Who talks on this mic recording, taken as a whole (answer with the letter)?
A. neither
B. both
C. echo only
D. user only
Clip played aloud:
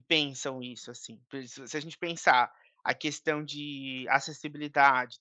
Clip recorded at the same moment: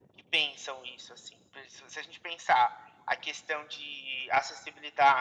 C